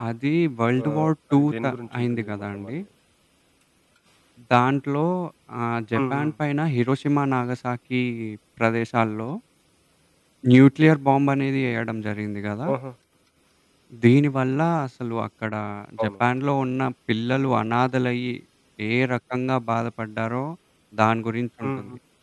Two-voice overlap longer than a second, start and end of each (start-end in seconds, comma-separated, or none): 0.8-2.7